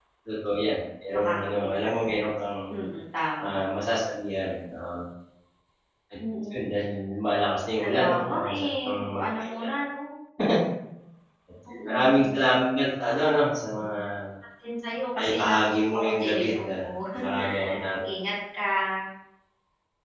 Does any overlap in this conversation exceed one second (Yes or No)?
Yes